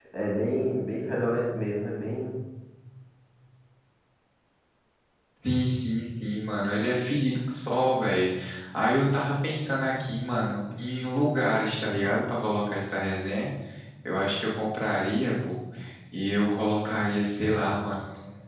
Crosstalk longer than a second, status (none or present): none